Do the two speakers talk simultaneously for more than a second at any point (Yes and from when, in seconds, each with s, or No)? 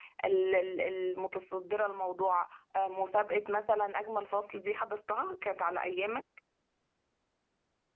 No